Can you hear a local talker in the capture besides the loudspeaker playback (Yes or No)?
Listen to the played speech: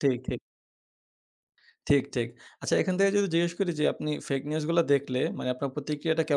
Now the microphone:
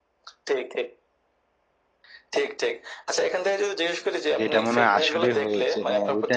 Yes